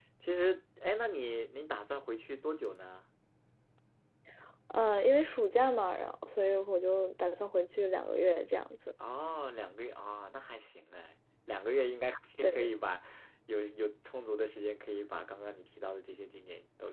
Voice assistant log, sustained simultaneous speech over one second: none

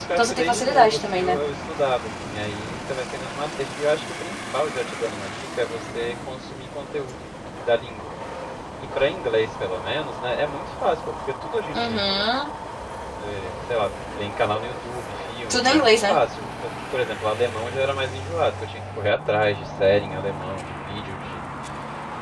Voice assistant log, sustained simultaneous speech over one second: present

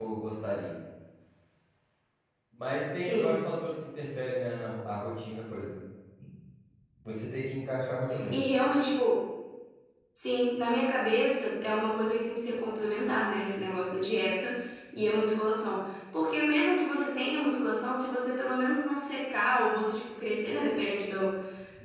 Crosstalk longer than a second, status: none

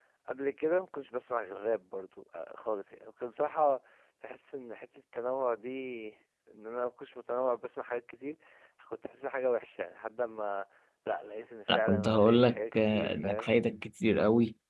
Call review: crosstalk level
present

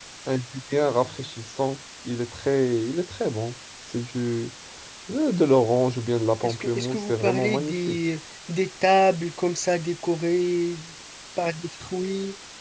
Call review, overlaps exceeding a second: present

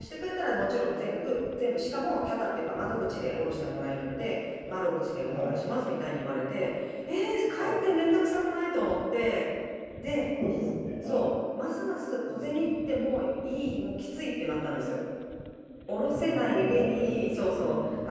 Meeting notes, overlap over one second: present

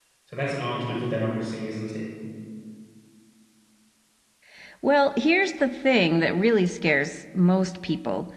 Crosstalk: none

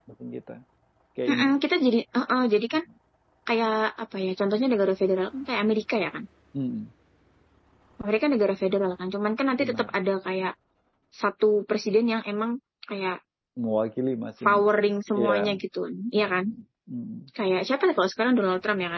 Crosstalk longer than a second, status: none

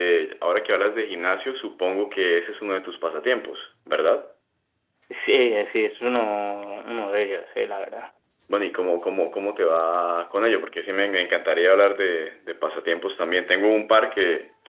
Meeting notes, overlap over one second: none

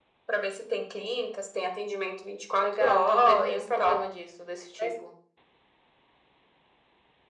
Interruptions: present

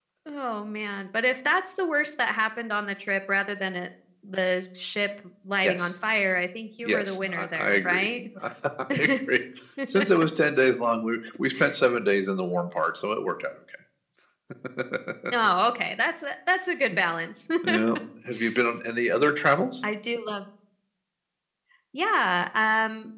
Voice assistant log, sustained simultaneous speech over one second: present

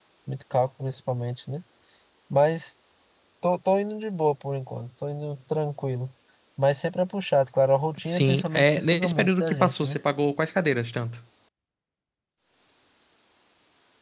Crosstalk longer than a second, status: present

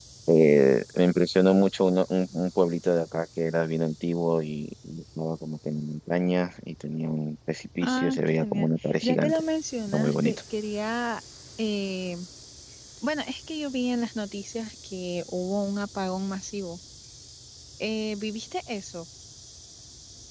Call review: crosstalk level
present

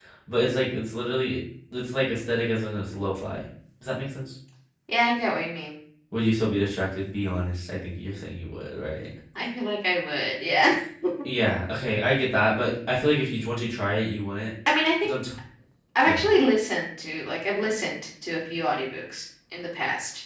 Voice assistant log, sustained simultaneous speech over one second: none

